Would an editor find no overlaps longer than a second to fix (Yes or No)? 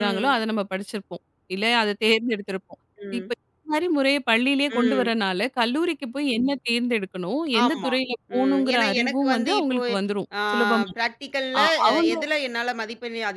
No